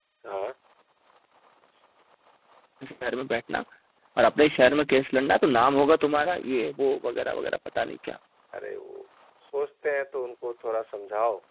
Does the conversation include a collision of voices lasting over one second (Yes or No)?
No